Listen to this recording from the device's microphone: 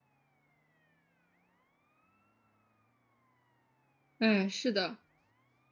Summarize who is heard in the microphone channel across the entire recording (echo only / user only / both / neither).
user only